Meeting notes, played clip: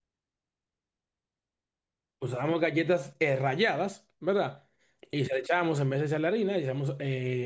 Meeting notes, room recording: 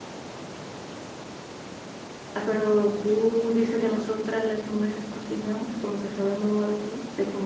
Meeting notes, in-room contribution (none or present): present